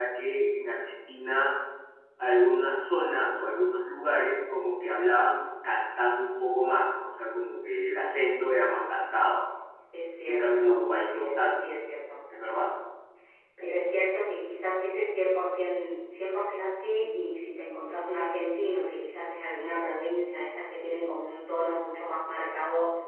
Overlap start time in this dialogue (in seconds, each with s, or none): 10.2 s